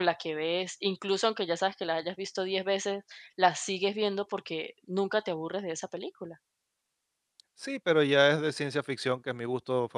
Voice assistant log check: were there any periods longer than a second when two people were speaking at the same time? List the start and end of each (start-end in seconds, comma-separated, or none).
none